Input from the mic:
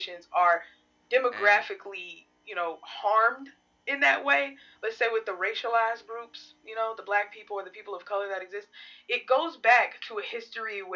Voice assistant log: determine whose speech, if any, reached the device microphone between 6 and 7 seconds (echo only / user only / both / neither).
echo only